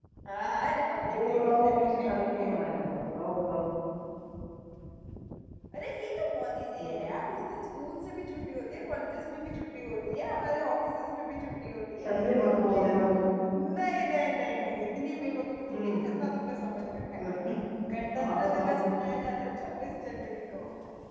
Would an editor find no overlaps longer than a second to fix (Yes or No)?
No